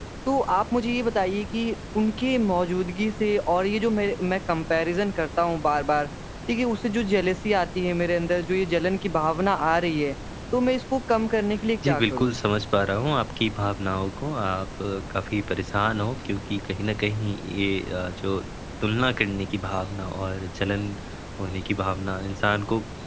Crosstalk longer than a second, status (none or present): none